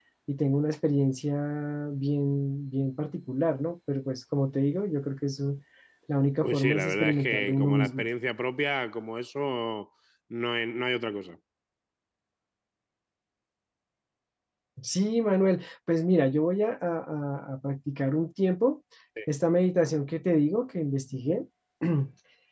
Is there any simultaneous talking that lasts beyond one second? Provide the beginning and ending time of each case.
6.4-8.1

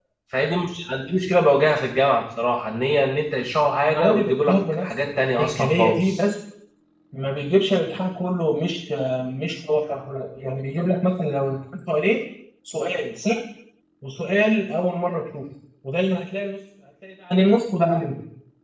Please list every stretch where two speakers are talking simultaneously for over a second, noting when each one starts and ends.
3.9-6.2

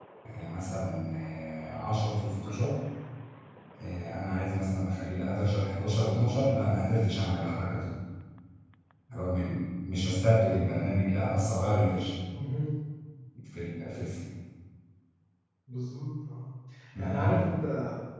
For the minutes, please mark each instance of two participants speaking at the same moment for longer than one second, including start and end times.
none

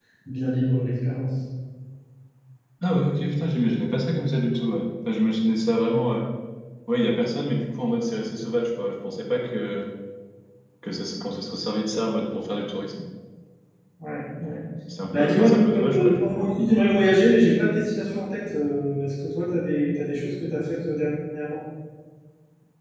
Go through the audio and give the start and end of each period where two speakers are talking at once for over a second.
15.1-16.5

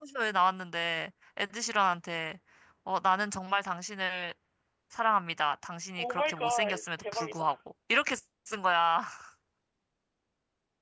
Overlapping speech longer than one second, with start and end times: 6.0-7.5

